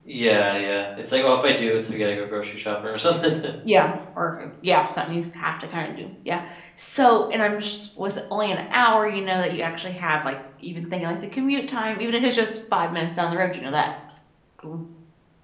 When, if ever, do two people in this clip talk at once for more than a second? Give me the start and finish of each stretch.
none

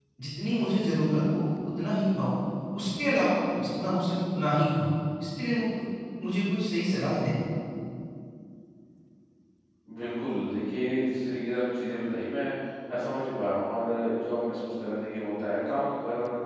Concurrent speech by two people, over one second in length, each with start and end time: none

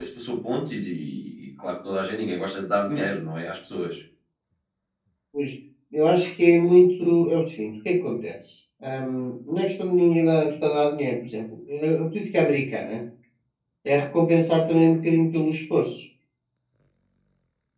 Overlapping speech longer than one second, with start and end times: none

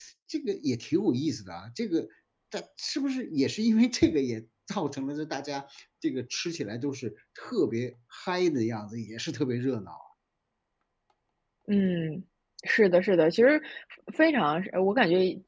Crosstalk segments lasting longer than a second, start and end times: none

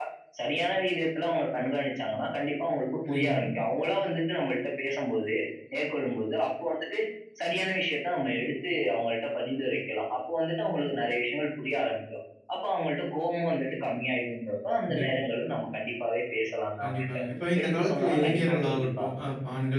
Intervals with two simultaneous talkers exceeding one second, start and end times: 17.6-19.1

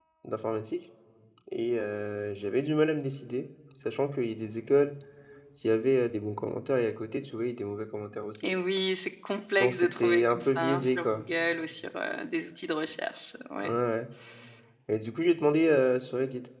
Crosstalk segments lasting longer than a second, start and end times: 9.6-11.2

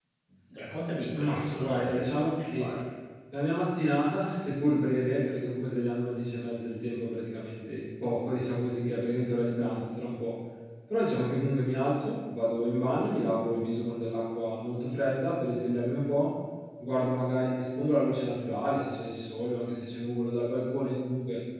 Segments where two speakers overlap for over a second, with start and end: 1.1-2.7

